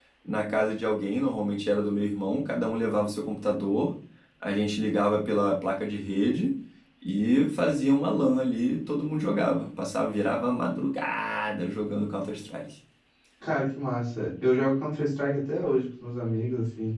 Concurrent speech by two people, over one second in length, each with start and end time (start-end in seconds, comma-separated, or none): none